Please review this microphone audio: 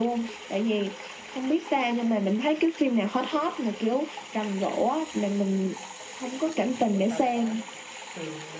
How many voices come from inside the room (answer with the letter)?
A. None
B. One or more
B